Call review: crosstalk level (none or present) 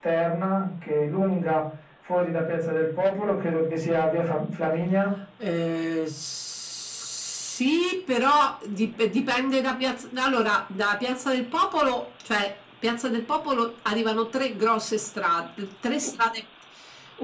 none